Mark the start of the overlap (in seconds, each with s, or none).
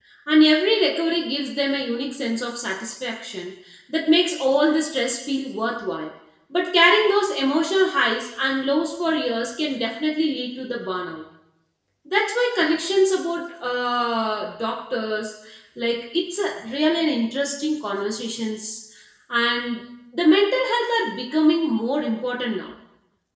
none